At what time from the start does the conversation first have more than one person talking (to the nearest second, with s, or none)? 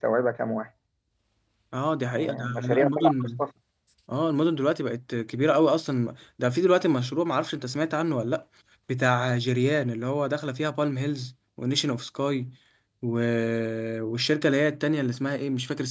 2 s